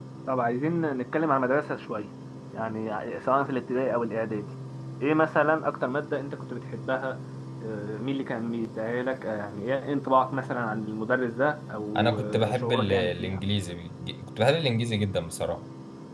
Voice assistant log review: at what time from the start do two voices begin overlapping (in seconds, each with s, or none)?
11.9 s